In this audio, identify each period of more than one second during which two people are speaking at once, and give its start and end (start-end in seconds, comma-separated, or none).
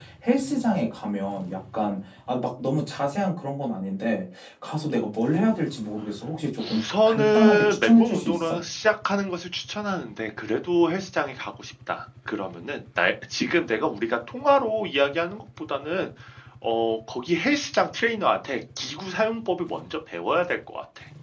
6.6-8.6